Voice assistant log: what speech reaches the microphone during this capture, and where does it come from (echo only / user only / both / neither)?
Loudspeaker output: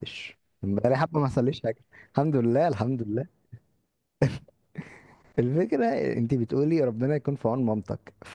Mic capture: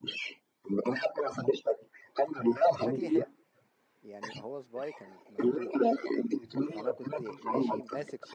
both